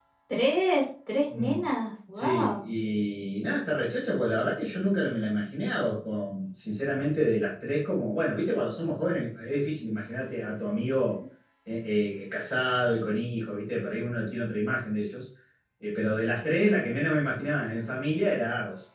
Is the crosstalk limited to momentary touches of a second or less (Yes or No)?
Yes